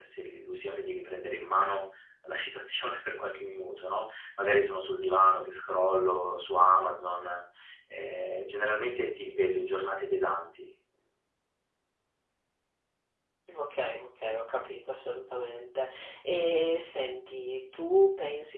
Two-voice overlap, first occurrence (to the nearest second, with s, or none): none